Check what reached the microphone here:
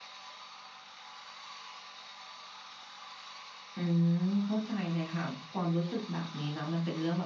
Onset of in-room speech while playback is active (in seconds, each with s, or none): 3.8 s